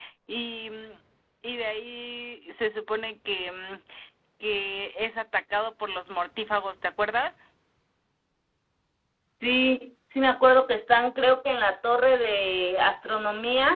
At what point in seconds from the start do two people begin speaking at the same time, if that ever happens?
none

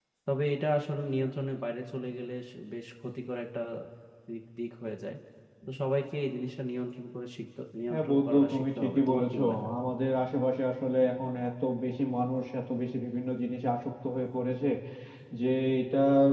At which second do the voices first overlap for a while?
7.9 s

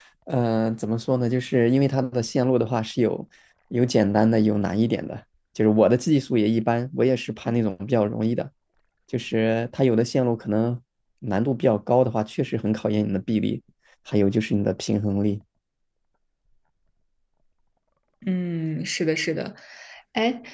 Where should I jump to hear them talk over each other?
none

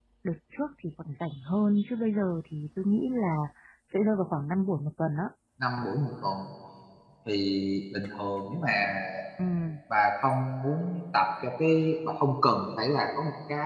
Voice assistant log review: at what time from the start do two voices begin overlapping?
none

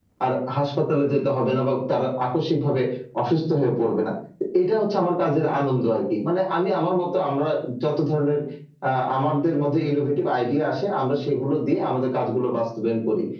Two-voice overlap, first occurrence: none

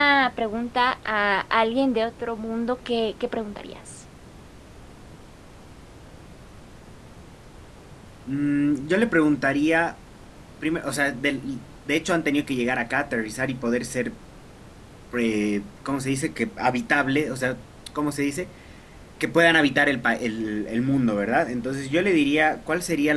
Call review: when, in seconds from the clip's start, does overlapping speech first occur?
none

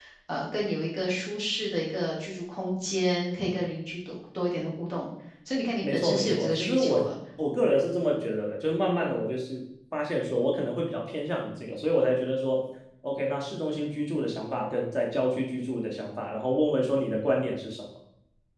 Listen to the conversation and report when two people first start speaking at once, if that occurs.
5.8 s

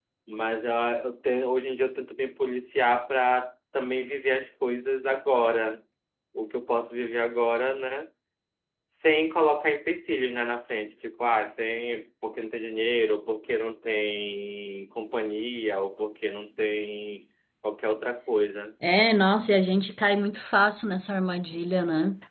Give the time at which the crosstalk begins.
none

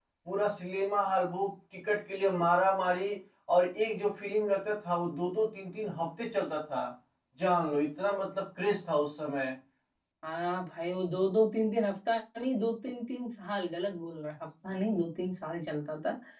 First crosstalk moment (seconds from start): none

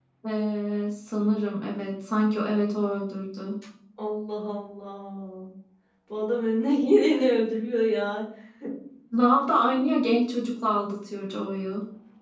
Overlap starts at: none

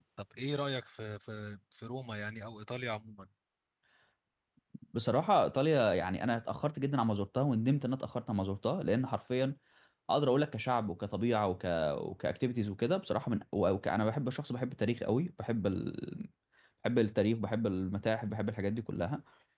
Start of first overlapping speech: none

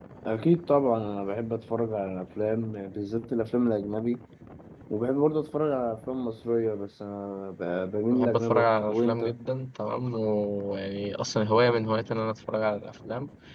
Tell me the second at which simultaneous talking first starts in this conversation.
8.1 s

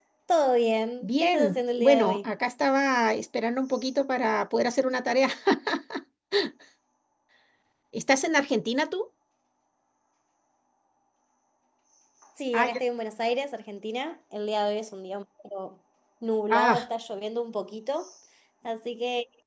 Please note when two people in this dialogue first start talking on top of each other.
1.0 s

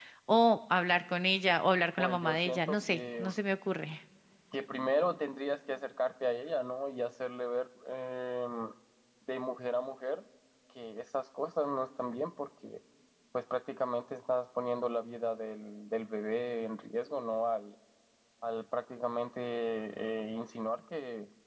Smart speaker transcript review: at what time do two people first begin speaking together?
2.0 s

